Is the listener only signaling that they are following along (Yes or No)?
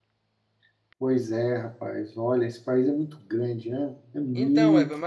No